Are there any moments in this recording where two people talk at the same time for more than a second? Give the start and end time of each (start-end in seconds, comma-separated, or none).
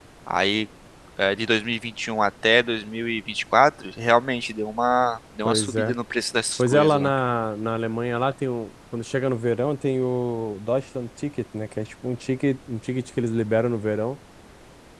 none